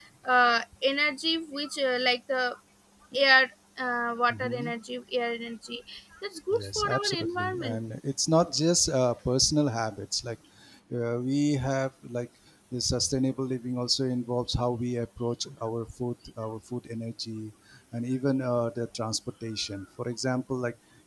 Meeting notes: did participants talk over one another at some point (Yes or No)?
Yes